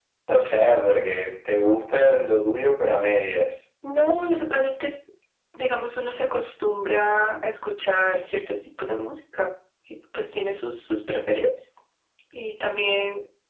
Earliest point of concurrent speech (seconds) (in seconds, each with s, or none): none